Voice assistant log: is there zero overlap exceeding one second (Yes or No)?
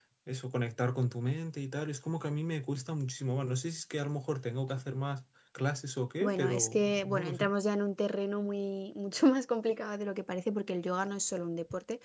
No